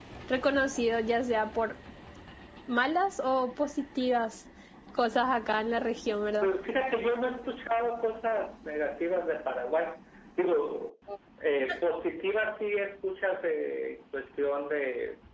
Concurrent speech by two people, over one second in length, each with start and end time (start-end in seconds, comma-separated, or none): none